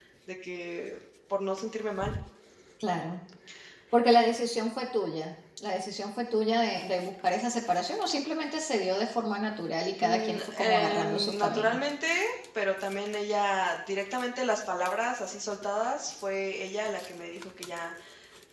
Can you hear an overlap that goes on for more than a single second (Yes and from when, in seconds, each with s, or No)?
Yes, from 10.0 s